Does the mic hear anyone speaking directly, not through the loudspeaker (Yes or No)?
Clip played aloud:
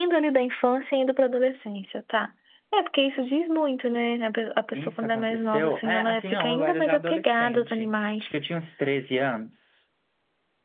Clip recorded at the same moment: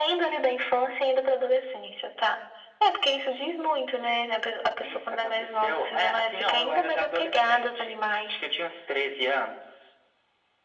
No